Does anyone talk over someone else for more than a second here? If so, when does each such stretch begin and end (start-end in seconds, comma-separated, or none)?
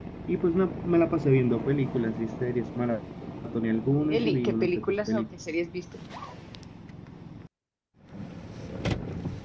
4.0-5.2